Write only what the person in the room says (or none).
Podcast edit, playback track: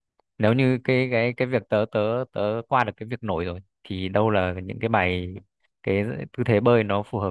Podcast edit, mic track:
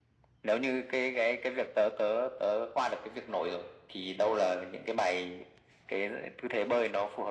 none